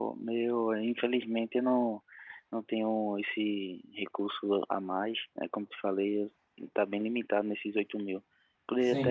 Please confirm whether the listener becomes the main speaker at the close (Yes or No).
No